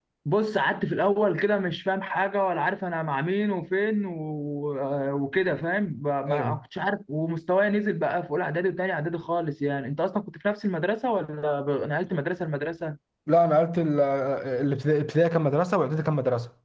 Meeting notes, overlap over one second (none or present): none